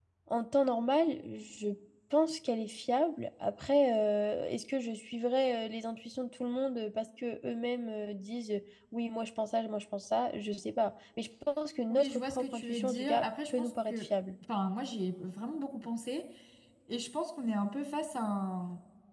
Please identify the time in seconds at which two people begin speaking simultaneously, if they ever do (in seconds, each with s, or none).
11.9 s